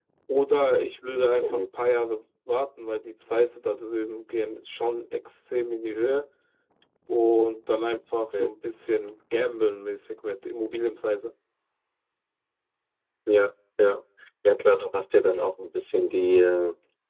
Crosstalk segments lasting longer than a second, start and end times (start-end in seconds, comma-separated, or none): none